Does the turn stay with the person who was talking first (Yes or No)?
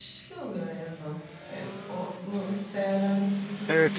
No